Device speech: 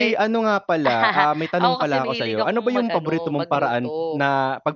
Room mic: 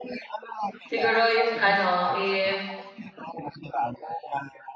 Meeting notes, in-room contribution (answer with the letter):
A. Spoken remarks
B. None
A